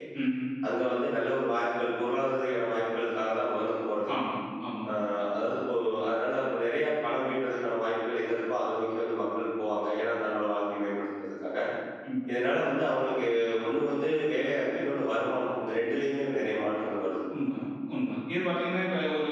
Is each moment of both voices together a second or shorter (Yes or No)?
Yes